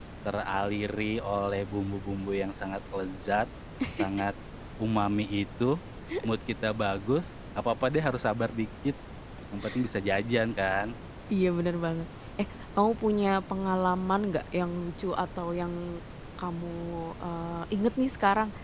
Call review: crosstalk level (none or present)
none